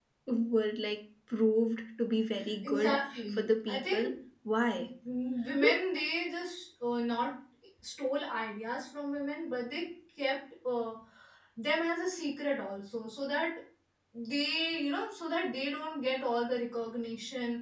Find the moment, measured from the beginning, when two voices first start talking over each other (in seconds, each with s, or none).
2.6 s